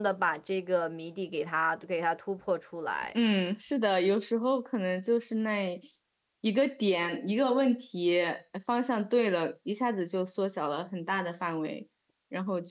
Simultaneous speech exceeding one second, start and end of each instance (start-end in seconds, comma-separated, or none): none